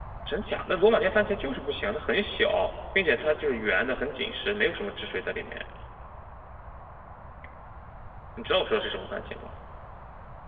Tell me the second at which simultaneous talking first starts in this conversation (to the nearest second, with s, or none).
none